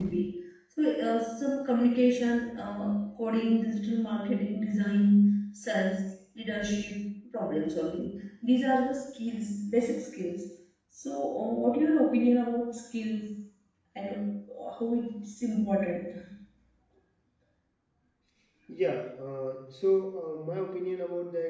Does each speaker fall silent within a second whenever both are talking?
Yes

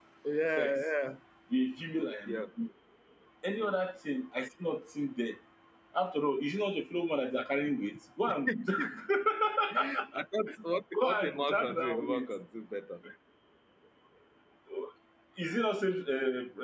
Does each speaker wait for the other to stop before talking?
No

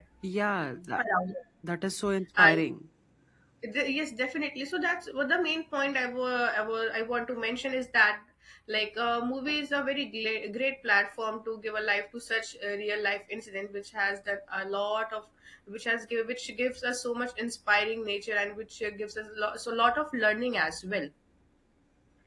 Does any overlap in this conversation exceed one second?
No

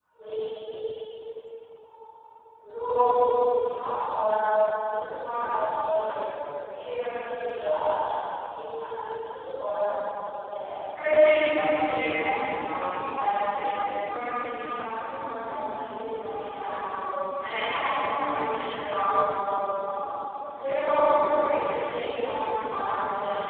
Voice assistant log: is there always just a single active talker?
Yes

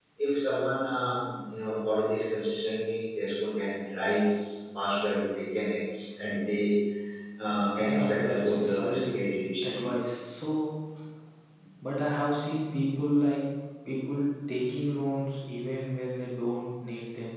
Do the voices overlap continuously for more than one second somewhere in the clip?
Yes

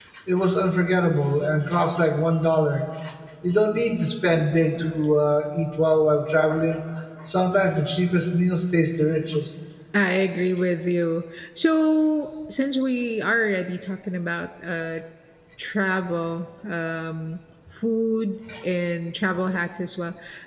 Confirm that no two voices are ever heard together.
Yes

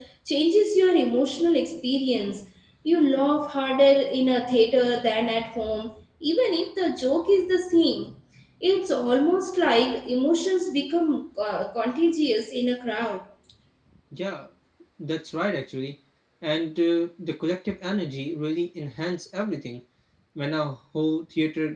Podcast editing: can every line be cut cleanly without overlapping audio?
Yes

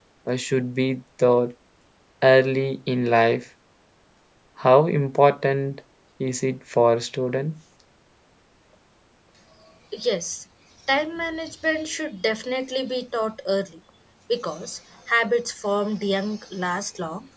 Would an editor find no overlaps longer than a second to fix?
Yes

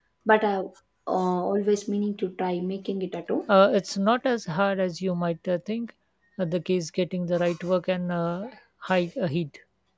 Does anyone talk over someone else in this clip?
No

